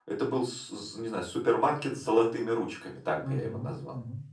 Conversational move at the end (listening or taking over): taking over